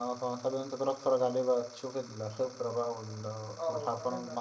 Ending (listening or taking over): taking over